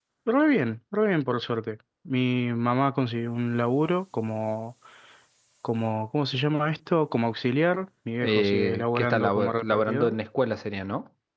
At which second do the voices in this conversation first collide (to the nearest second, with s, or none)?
8 s